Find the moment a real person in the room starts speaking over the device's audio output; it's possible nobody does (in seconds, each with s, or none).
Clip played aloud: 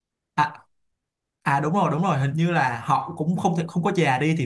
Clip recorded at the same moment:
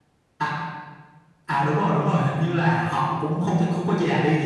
none